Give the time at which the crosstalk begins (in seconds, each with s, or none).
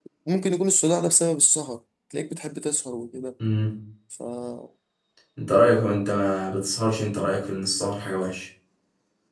none